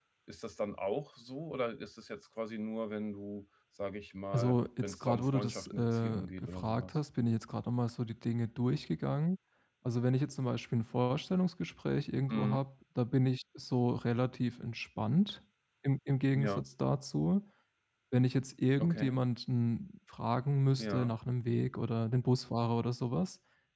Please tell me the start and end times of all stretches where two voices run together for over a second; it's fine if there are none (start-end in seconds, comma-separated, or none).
4.3-7.0